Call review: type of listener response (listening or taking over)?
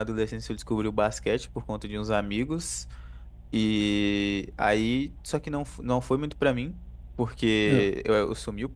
listening